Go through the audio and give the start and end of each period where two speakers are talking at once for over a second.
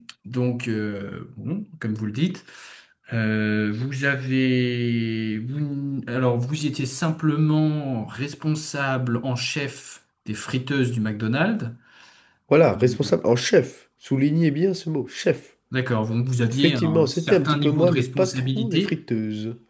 16.6-19.0

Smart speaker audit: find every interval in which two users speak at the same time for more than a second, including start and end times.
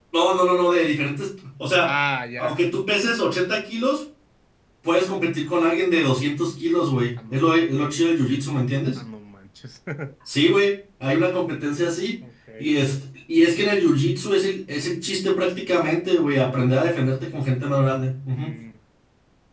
none

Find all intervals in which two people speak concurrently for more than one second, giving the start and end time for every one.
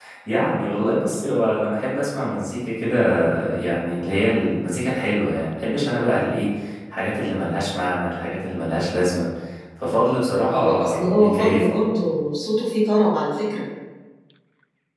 10.5-11.7

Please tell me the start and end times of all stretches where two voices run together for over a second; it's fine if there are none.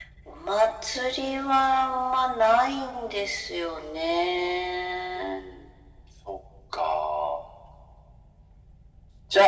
none

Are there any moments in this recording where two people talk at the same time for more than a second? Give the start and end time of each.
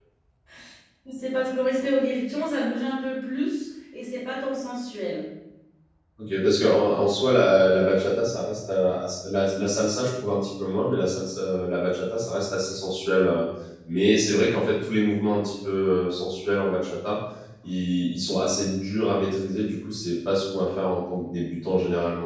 none

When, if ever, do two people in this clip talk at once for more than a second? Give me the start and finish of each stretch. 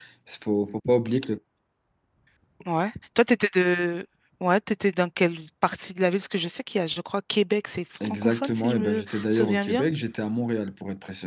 8.0-9.8

